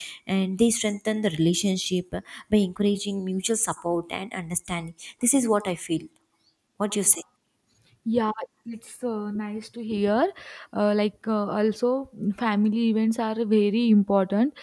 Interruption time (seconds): none

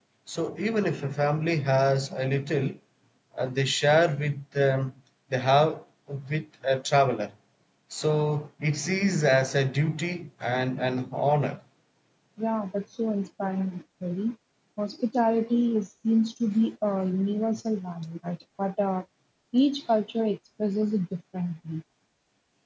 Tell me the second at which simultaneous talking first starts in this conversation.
none

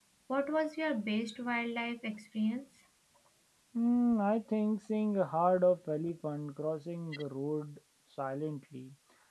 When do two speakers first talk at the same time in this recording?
none

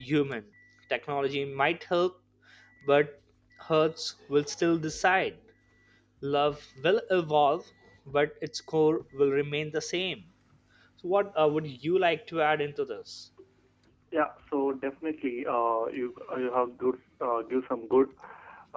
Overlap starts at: none

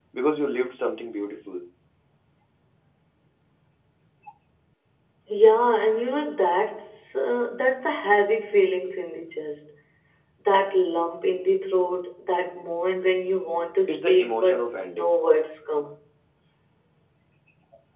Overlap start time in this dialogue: 13.9 s

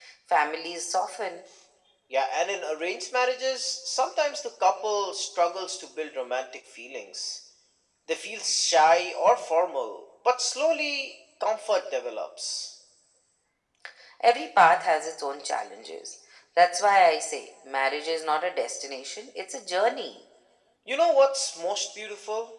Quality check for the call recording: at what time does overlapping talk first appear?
none

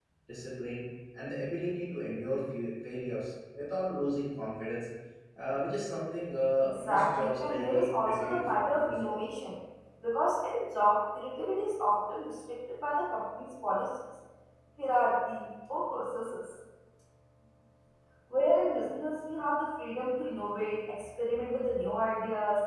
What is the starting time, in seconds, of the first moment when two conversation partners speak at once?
6.8 s

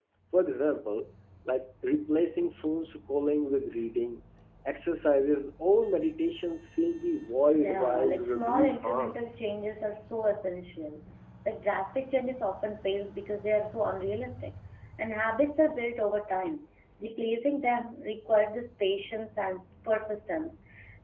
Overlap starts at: 7.5 s

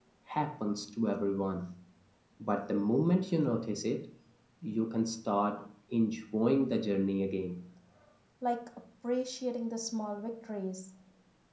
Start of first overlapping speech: none

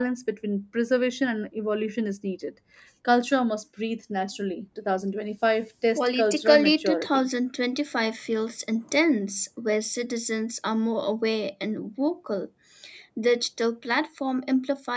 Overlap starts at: 6.0 s

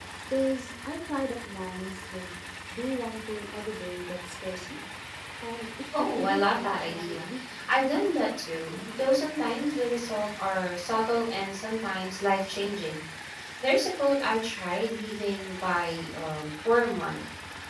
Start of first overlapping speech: 6.0 s

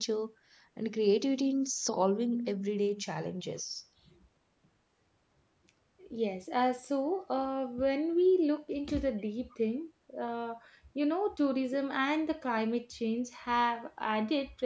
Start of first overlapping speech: none

